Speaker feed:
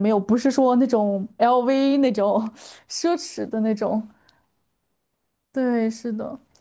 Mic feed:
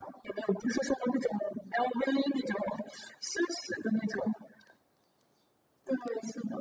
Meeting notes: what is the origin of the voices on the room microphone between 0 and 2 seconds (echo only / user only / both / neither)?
echo only